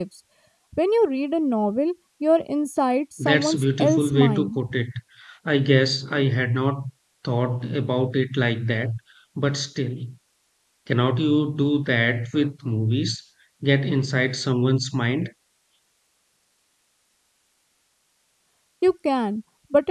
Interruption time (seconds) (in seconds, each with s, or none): 3.2 s